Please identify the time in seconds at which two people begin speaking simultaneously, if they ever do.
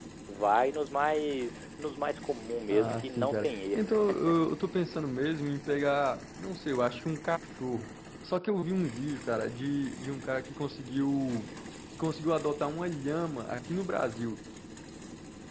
2.7 s

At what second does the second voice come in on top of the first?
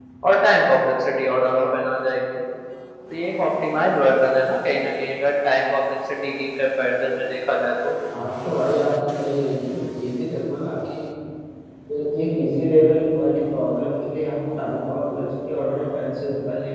none

